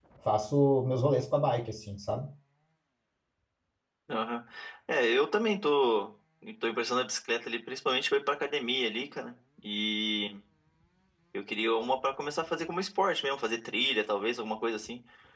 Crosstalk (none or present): none